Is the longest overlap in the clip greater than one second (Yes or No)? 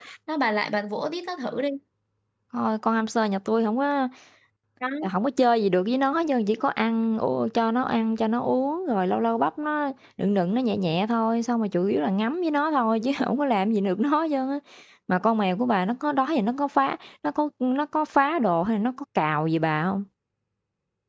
No